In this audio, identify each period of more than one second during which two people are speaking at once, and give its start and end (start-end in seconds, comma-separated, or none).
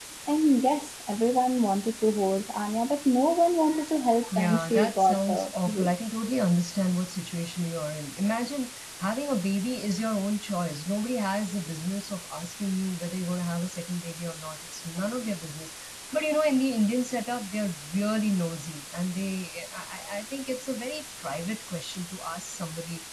4.4-5.9